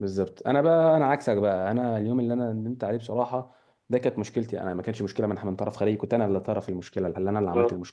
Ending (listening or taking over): listening